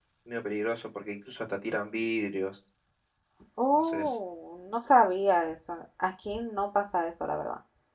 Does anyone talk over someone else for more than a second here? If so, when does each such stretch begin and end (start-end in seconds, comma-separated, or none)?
none